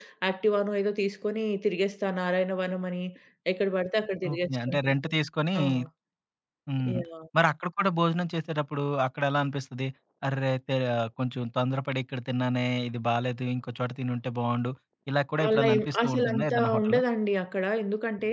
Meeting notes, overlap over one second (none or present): present